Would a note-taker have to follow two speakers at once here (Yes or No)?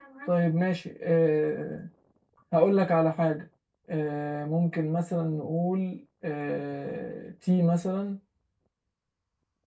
No